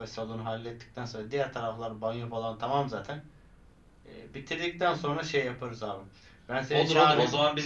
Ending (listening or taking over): taking over